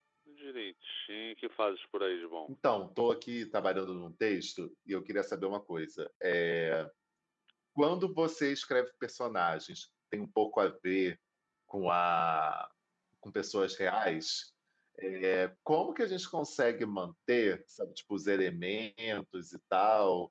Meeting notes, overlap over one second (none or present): none